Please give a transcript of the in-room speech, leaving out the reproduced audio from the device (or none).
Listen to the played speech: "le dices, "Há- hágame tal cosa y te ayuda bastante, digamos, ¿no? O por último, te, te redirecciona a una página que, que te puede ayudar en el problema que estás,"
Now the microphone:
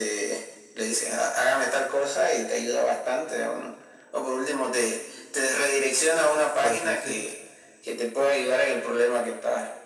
por así decirlo